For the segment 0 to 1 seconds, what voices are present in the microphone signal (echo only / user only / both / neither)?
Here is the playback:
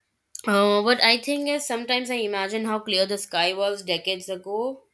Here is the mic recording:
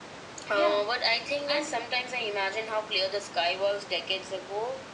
both